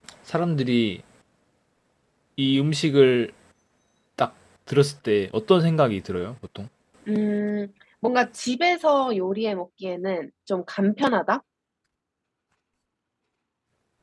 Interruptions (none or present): none